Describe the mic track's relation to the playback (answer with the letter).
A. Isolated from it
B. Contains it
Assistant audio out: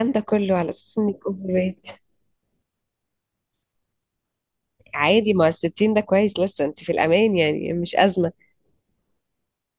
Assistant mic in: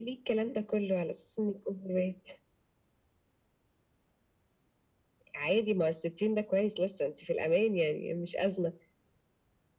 B